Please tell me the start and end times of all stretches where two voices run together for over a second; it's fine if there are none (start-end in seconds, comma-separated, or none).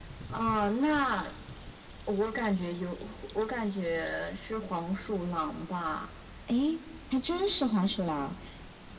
none